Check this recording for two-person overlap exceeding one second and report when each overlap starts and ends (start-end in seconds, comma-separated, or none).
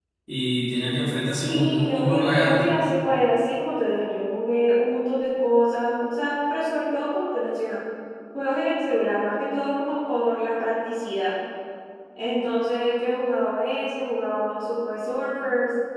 1.2-2.7